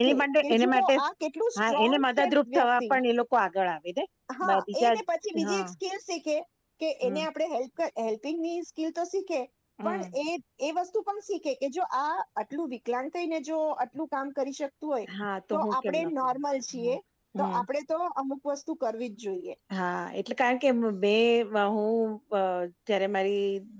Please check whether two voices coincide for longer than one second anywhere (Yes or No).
Yes